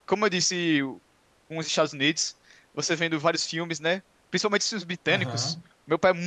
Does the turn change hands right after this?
No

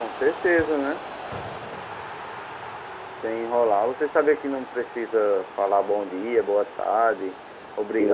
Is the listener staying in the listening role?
No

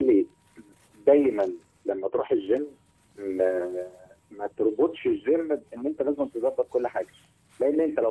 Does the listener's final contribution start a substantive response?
No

